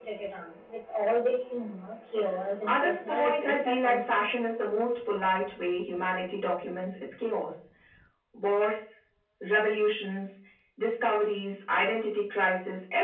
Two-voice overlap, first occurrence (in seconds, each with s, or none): 2.6 s